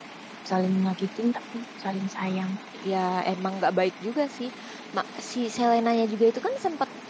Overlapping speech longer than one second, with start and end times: none

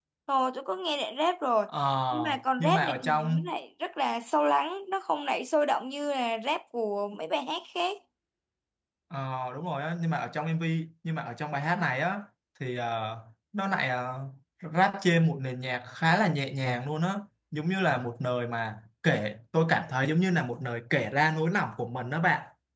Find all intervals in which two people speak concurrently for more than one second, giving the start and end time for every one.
2.1-3.5

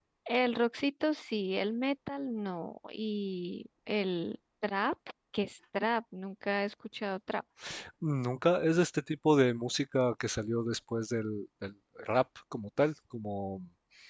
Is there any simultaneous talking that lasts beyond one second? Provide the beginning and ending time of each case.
none

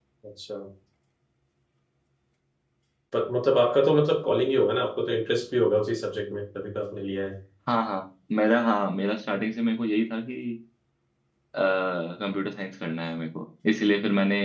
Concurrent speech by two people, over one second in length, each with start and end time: none

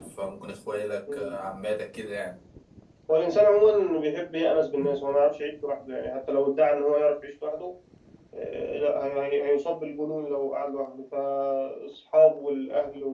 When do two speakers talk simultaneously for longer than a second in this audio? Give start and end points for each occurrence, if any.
none

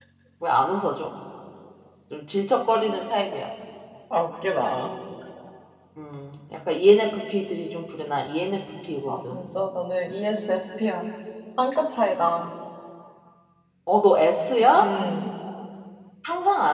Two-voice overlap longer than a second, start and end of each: none

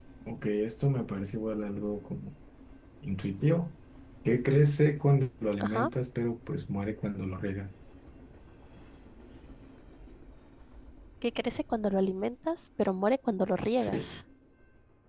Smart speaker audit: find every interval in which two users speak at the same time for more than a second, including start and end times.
none

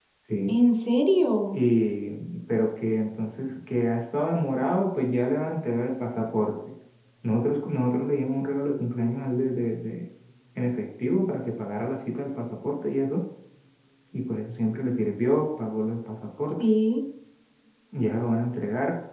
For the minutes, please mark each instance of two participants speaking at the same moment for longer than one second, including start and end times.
none

